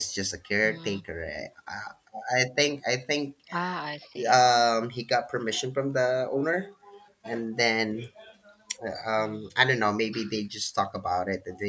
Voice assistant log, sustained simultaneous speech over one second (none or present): none